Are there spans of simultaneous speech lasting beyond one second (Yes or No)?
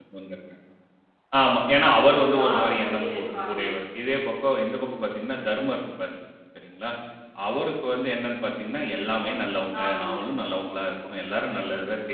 Yes